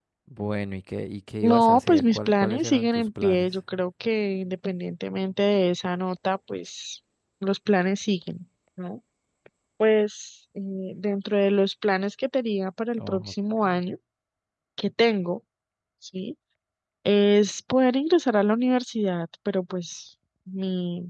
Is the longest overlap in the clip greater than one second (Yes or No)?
Yes